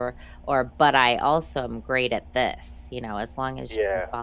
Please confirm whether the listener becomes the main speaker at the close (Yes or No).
No